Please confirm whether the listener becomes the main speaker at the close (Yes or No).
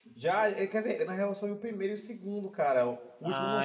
Yes